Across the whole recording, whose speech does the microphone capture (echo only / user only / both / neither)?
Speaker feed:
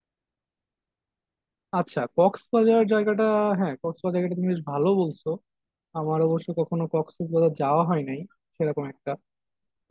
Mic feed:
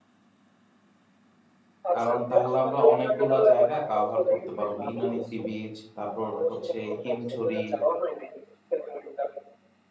both